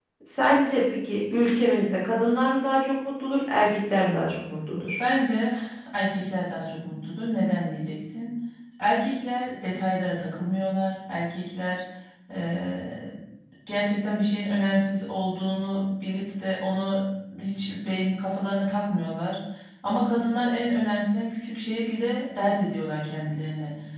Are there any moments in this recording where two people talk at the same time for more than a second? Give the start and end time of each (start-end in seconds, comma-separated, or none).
none